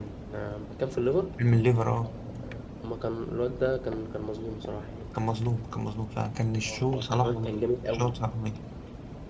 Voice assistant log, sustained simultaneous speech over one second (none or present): present